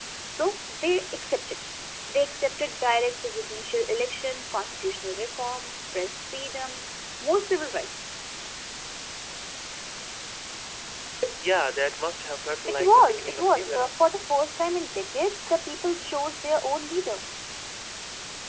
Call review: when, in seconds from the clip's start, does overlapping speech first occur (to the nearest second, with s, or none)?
13 s